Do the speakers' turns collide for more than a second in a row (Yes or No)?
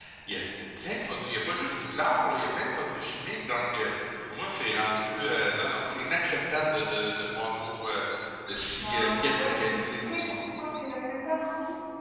Yes